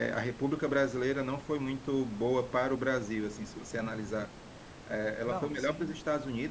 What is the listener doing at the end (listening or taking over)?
listening